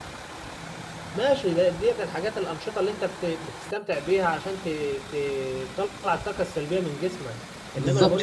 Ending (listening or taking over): listening